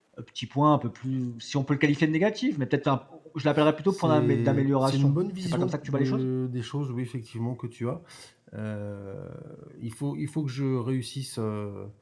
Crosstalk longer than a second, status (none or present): present